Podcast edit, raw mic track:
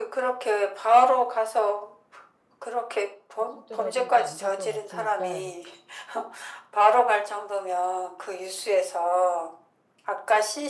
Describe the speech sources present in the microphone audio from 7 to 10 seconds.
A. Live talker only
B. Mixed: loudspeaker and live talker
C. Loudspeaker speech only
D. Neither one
C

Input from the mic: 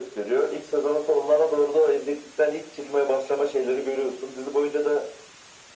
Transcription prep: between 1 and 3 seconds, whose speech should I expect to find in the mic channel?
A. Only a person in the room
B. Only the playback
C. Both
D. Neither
B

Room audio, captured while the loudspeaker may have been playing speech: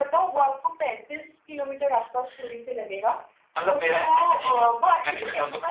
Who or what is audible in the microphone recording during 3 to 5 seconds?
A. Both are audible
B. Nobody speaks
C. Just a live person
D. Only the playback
D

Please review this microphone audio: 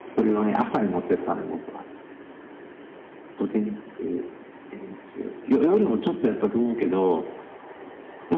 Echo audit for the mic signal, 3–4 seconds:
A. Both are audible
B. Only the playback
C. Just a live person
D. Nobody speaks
B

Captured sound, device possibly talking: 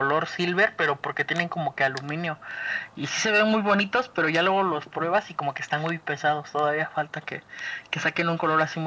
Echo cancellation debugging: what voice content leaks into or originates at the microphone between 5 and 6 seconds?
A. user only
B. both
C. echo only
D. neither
C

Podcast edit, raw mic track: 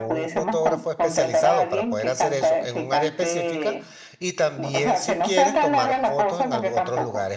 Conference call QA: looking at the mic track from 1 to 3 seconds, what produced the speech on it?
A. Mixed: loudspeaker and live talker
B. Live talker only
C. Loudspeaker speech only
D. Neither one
A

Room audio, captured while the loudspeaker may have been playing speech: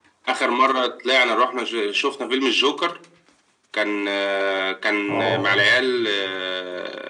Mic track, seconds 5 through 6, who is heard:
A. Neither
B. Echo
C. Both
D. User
C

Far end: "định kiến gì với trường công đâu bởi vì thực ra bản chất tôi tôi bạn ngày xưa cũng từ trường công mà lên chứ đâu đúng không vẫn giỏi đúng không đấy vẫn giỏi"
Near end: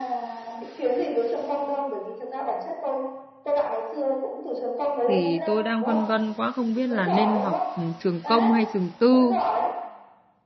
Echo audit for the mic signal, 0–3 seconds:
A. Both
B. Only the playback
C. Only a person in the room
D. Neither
B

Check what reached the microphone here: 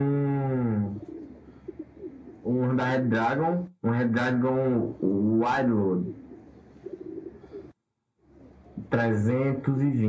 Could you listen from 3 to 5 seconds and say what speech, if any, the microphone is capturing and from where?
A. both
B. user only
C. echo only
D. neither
C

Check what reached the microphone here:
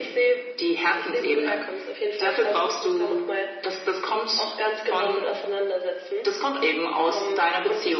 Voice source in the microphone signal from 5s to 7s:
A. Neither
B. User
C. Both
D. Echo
D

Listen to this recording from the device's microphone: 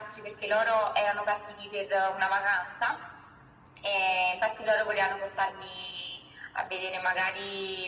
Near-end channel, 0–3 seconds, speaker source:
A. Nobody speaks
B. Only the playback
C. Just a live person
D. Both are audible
B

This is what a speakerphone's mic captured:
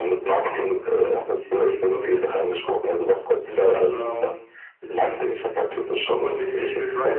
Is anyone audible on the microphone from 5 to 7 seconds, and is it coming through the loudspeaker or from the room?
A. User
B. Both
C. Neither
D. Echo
B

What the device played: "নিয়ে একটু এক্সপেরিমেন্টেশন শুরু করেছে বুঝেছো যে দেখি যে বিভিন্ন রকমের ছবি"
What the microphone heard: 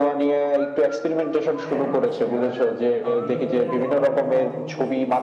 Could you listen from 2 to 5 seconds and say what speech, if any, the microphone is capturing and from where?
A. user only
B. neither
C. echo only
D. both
D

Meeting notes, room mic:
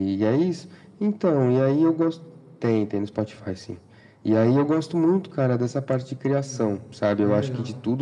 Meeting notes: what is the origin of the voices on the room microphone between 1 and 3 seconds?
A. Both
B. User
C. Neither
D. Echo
D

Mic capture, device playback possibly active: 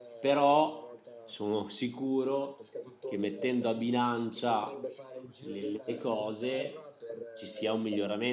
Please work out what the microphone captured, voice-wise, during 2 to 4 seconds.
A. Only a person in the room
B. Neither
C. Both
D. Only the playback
C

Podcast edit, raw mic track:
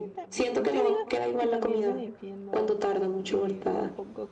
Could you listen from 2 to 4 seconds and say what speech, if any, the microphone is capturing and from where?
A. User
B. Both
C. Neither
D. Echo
B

